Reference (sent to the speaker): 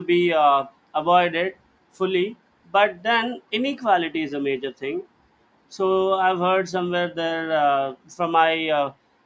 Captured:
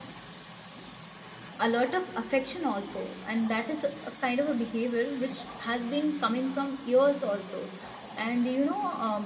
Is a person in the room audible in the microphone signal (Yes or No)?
Yes